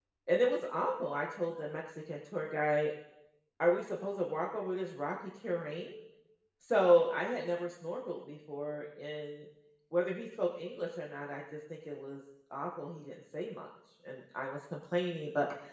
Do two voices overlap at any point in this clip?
No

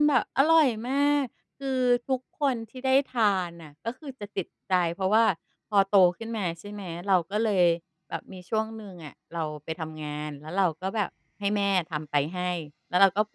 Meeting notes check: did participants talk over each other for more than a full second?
No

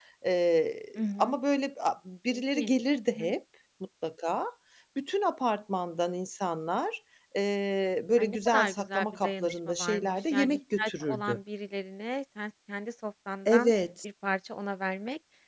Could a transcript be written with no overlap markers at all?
No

